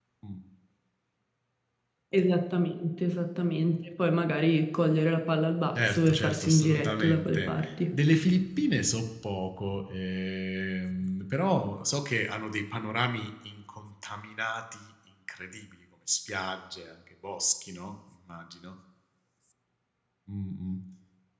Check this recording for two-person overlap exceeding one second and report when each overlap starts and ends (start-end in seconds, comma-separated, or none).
5.9-7.7